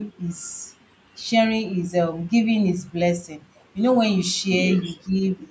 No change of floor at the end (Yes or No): Yes